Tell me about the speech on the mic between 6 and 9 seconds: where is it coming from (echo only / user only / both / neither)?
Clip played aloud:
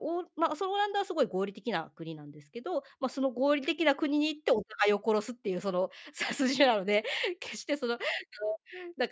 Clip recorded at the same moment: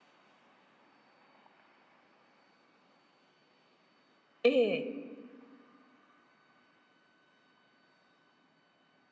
neither